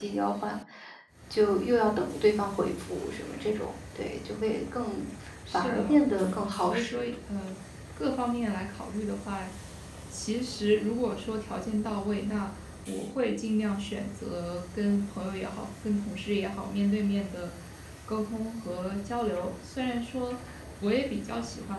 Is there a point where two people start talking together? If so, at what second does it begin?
5.5 s

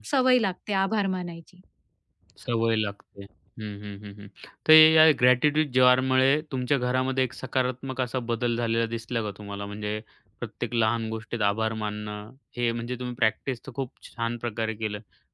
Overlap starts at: none

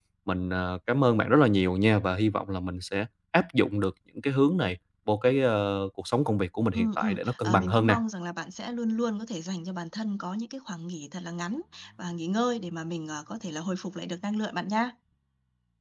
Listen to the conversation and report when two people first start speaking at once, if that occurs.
6.7 s

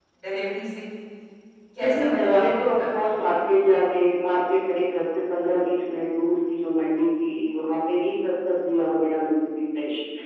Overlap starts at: 1.8 s

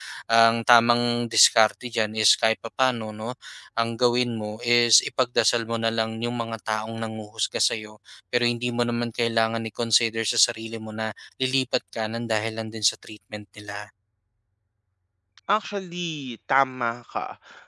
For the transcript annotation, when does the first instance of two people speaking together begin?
none

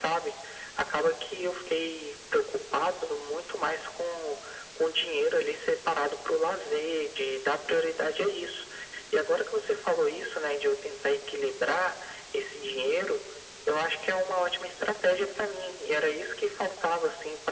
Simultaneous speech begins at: none

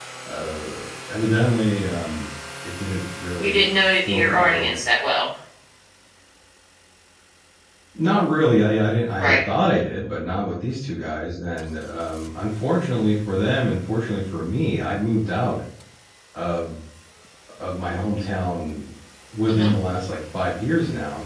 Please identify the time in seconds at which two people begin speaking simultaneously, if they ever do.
3.4 s

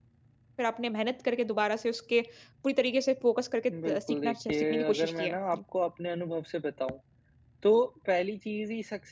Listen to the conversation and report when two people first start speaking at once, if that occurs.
3.7 s

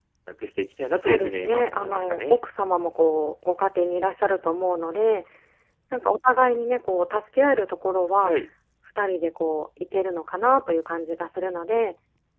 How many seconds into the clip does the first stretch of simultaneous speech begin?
1.0 s

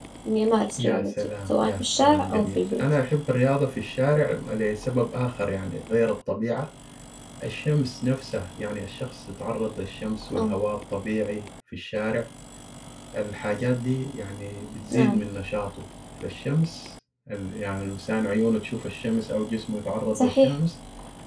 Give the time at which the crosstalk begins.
0.8 s

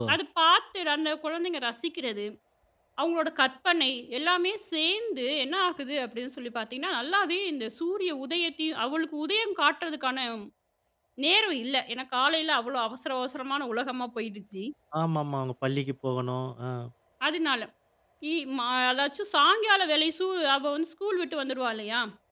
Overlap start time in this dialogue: none

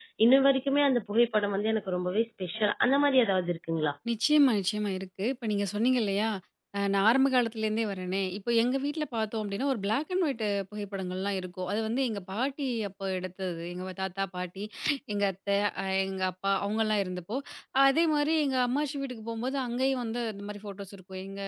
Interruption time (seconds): none

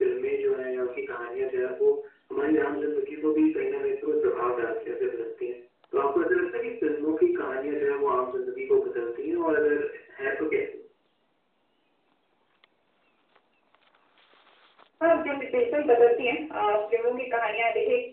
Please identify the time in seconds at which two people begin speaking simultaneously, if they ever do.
none

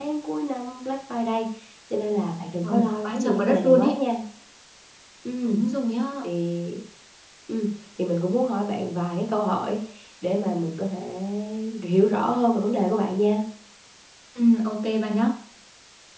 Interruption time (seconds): 2.6 s

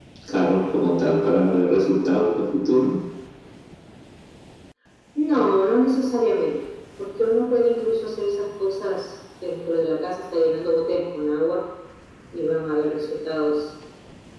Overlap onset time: none

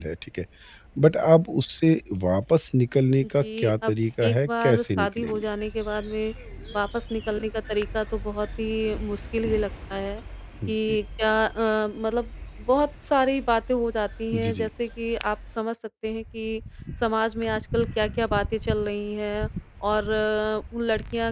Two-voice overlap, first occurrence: 3.2 s

